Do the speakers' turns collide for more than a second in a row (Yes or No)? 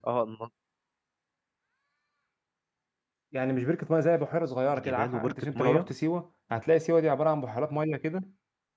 Yes